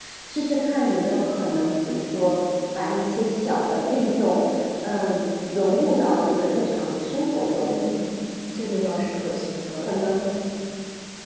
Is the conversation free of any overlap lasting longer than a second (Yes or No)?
Yes